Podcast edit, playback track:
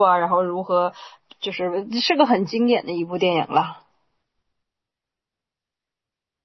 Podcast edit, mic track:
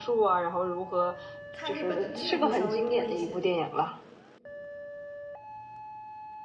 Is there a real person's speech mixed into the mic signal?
Yes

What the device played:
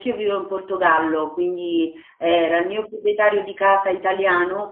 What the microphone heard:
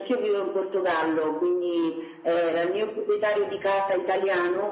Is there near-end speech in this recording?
No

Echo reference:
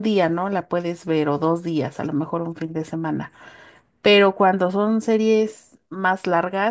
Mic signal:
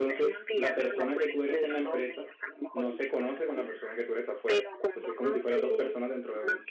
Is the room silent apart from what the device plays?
No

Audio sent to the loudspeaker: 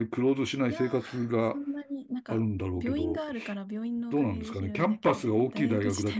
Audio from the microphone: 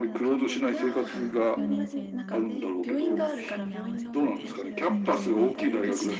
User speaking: Yes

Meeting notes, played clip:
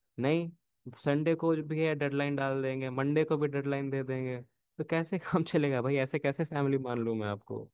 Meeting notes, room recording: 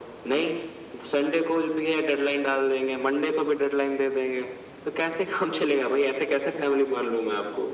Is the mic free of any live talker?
Yes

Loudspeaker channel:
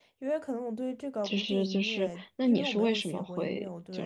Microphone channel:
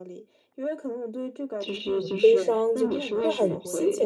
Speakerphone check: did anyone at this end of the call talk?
Yes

